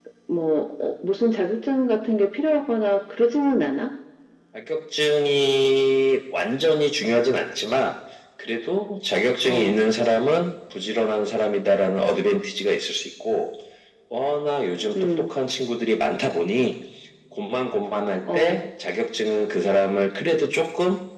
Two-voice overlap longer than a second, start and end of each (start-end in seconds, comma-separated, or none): none